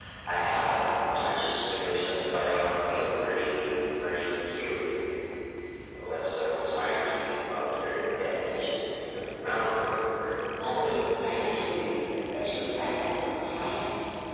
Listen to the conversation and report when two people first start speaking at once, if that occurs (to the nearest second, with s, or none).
11 s